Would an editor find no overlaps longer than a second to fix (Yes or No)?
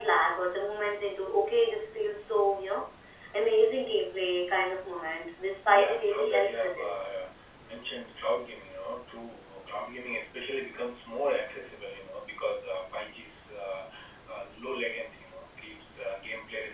No